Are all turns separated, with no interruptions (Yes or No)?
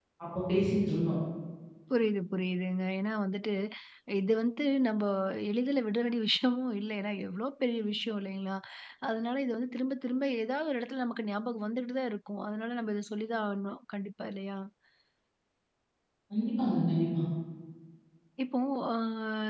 Yes